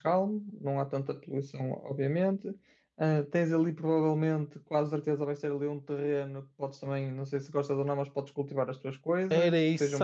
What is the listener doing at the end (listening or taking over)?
taking over